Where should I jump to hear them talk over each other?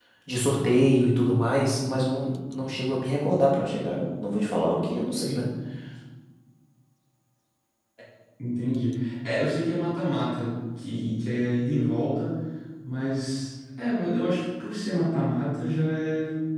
none

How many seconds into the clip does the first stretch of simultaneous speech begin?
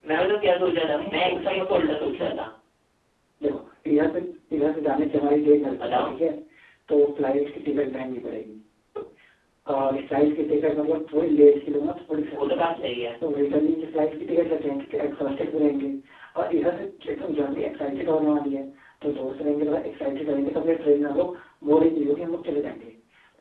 1.0 s

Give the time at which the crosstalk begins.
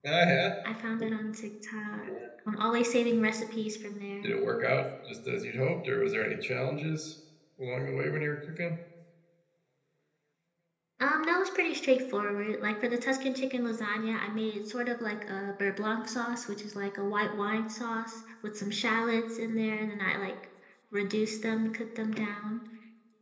none

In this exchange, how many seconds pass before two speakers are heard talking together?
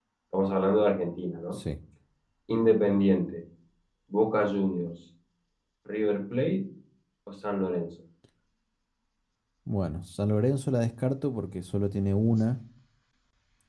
none

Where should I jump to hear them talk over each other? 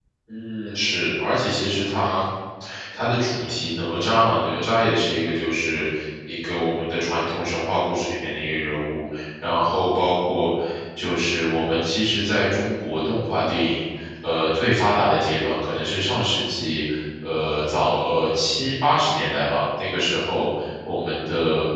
none

